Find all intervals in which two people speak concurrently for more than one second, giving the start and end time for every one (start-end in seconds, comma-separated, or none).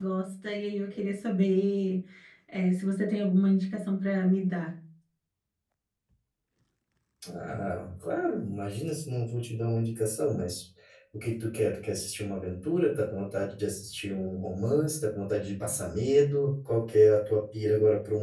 none